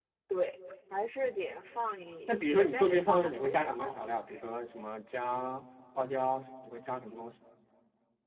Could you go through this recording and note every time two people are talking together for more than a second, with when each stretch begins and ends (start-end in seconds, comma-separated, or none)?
2.3-4.0